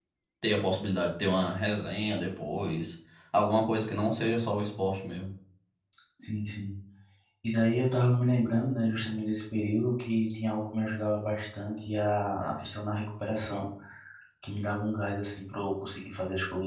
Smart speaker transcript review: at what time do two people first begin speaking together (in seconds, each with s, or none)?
none